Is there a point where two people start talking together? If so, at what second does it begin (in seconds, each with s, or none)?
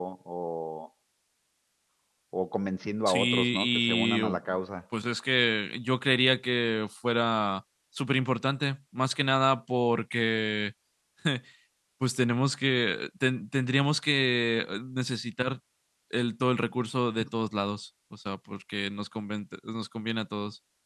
3.1 s